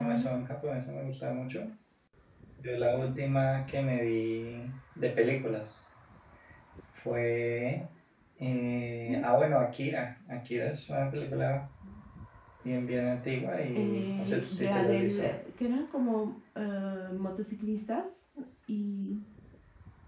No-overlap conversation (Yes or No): No